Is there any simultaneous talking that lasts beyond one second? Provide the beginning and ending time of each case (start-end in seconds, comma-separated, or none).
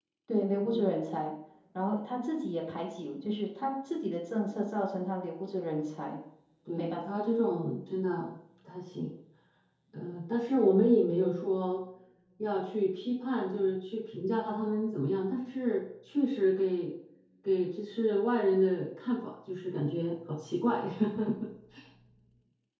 none